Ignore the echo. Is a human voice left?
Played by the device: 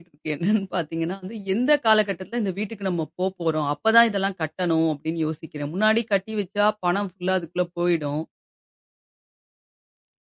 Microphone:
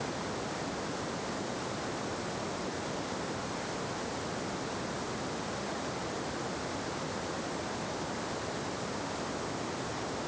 No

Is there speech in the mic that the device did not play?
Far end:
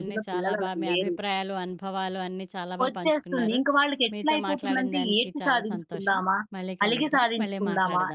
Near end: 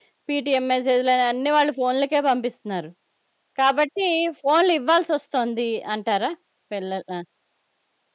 Yes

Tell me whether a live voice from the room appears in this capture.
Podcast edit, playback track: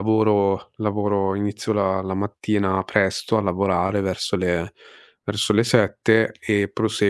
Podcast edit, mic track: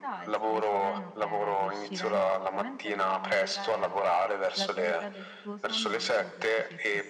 Yes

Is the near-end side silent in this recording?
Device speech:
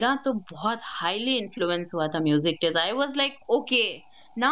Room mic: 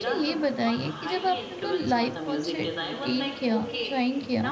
No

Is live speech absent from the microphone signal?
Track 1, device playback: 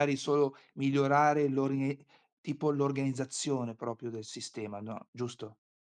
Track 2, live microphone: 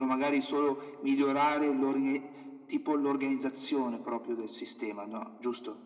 Yes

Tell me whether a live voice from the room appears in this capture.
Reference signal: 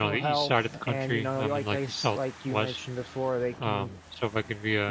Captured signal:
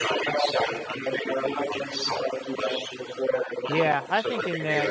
Yes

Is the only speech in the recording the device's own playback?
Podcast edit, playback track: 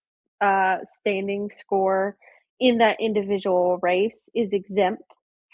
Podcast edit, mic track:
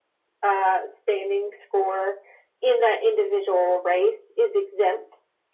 Yes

